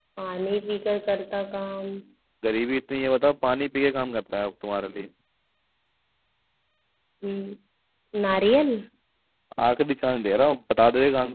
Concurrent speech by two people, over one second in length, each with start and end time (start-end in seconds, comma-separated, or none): none